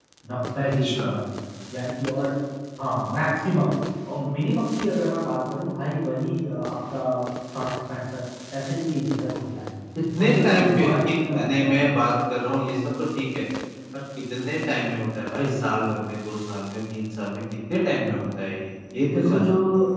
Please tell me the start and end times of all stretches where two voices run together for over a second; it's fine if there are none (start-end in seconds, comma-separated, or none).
10.2-12.0